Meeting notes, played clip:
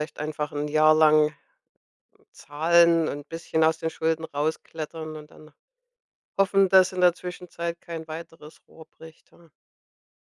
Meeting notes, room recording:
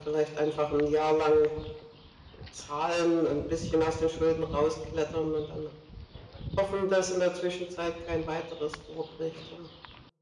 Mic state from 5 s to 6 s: echo only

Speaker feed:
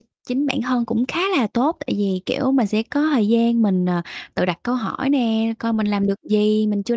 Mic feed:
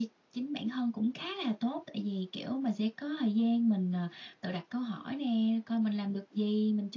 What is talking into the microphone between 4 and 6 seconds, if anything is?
echo only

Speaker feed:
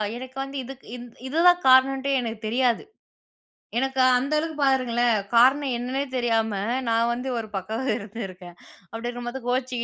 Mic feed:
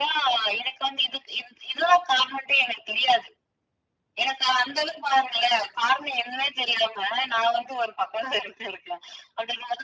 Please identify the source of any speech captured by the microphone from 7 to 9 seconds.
echo only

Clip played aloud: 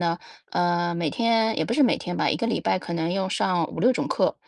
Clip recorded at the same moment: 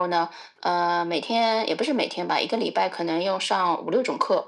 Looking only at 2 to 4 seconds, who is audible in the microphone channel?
echo only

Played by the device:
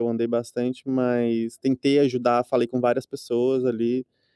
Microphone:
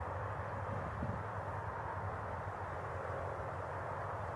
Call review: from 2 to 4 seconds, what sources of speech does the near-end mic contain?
neither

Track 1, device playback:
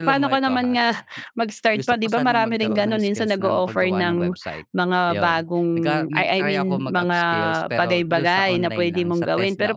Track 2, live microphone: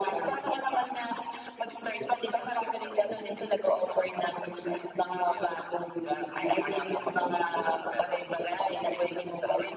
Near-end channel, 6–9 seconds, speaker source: echo only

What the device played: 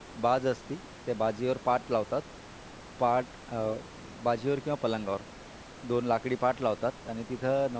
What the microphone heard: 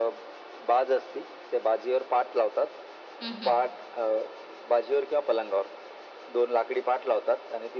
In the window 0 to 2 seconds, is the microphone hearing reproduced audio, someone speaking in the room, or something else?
echo only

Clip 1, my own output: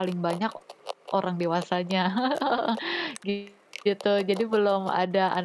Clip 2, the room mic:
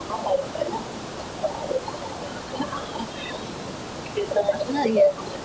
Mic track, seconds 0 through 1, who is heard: echo only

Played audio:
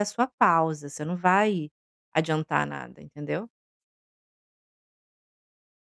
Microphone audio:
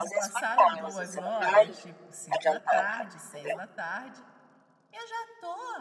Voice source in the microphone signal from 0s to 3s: both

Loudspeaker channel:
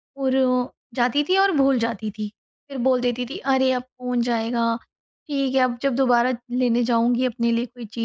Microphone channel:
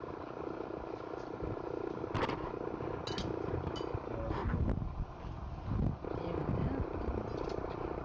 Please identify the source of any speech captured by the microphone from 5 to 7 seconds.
neither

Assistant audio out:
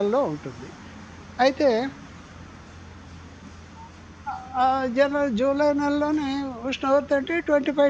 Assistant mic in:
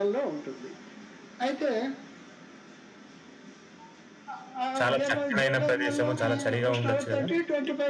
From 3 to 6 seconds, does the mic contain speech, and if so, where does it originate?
both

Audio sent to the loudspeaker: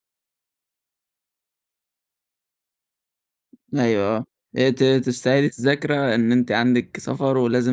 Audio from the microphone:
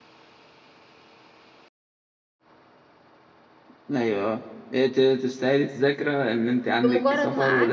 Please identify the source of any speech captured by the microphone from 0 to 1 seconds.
neither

